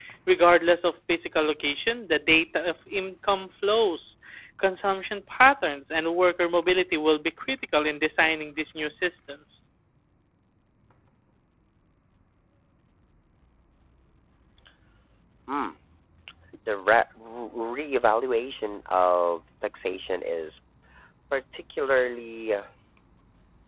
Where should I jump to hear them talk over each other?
none

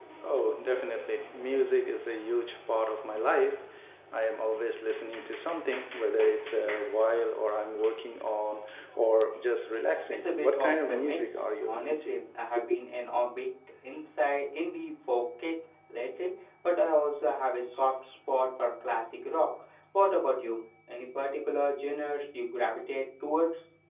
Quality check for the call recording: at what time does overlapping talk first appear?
10.1 s

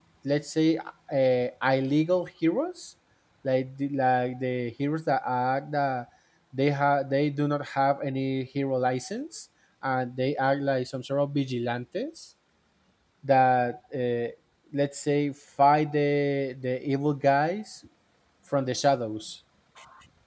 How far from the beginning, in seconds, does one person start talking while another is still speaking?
none

